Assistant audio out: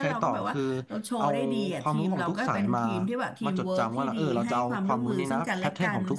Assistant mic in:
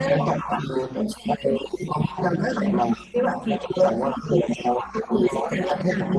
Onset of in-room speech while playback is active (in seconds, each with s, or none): none